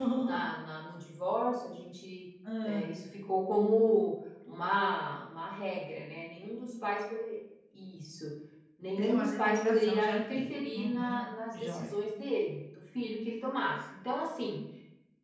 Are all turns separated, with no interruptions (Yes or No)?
No